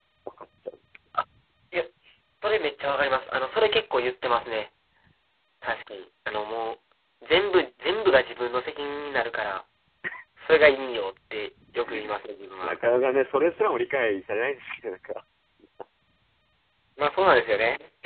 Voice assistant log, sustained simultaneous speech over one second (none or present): none